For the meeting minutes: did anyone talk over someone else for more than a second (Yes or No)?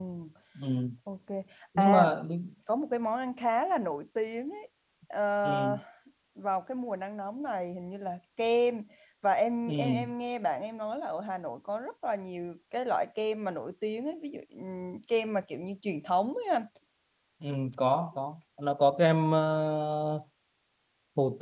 No